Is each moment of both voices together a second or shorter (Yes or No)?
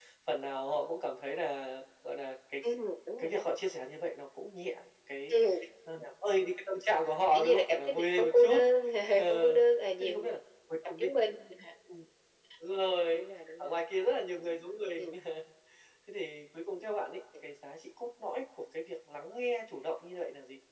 No